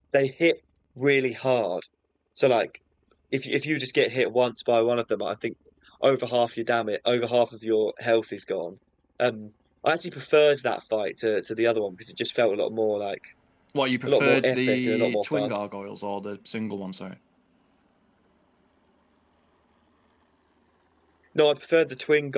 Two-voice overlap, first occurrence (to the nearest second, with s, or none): 14 s